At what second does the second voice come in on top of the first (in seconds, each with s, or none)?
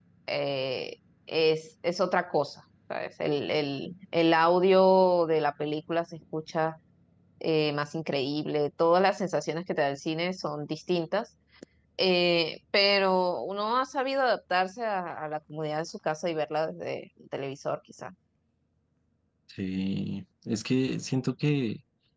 none